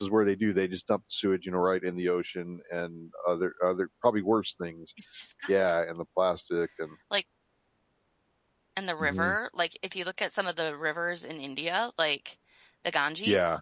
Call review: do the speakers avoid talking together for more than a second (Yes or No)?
Yes